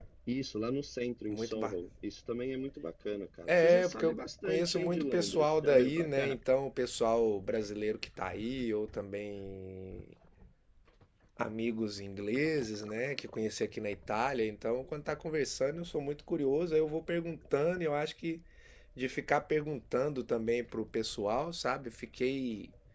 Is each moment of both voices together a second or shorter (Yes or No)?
No